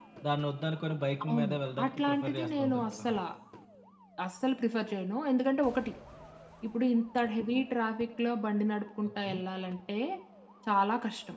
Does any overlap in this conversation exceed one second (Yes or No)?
Yes